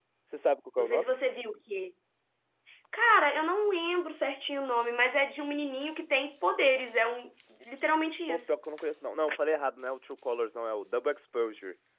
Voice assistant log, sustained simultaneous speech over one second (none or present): none